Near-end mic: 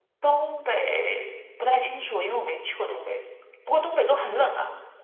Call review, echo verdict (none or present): none